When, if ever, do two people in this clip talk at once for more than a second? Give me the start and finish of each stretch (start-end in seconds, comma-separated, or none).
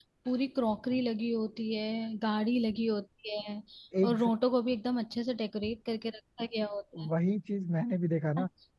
none